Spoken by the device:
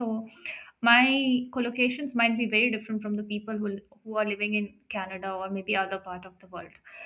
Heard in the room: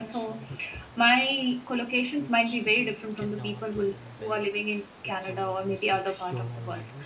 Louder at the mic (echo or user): echo